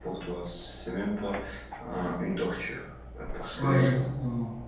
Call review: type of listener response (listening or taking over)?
taking over